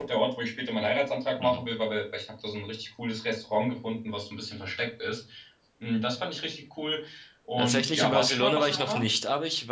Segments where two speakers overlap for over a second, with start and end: 7.6-9.0

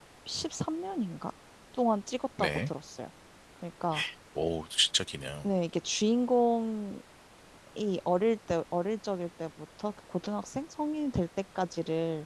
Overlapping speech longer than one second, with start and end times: none

